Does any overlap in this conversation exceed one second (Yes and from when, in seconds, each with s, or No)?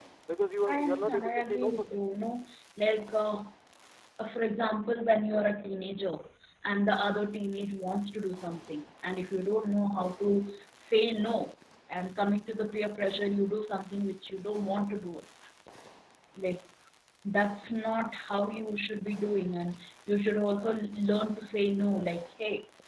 Yes, from 0.7 s